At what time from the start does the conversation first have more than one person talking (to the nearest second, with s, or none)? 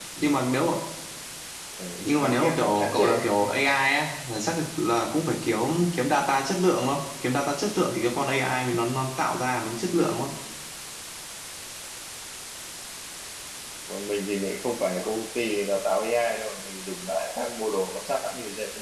2 s